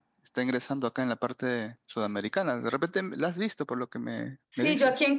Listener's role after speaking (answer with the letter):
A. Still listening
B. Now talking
B